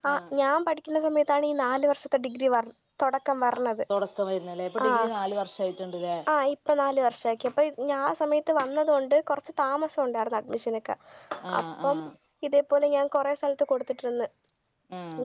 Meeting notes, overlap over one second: none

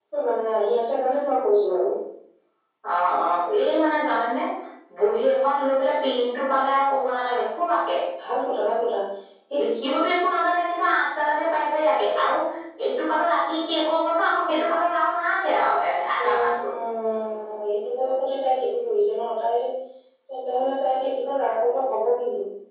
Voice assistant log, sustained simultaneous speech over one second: none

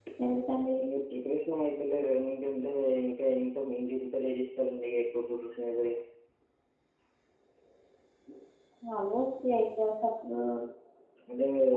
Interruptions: none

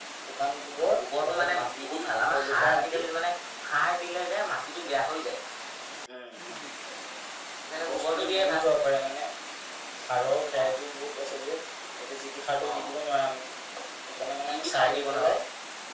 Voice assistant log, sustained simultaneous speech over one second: present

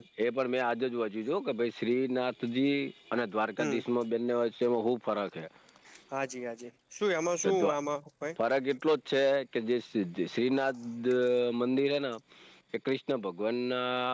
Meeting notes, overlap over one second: none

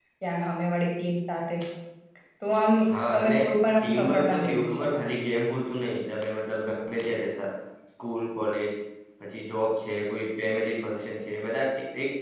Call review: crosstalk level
present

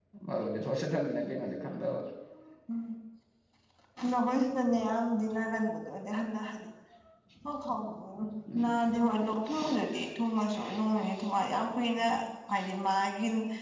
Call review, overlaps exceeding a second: none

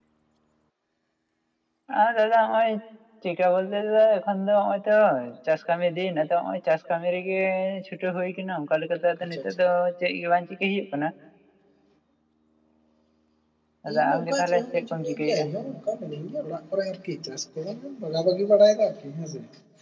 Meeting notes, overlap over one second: present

